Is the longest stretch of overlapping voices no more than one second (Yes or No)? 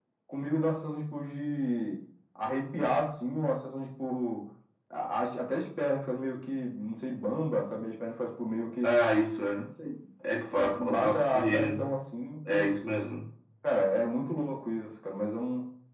No